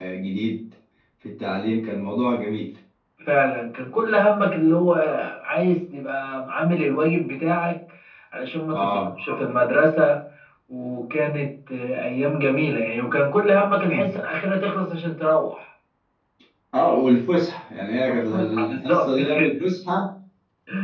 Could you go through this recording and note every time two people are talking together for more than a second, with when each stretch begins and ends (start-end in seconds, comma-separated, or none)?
18.1-19.5